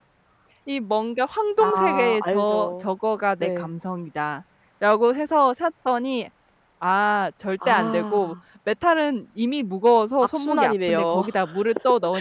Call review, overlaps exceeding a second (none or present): present